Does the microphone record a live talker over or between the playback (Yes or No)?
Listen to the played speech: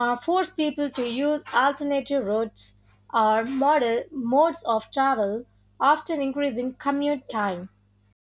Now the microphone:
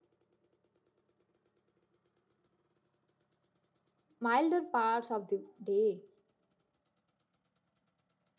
Yes